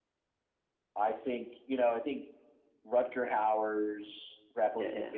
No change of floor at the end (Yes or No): Yes